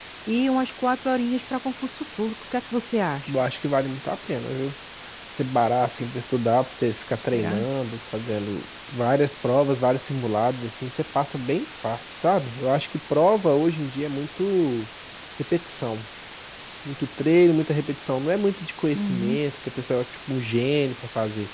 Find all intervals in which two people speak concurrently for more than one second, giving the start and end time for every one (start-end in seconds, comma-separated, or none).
none